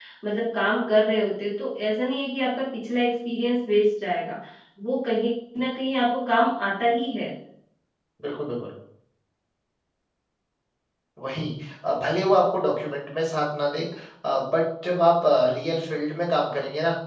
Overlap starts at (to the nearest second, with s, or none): none